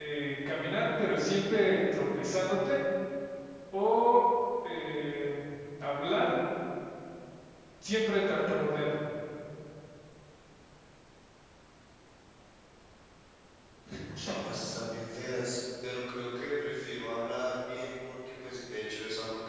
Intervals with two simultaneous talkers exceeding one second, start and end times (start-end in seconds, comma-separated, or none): none